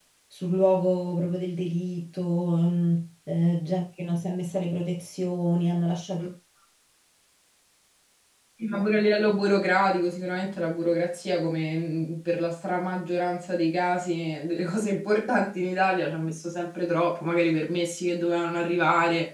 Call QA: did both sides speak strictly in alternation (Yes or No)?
Yes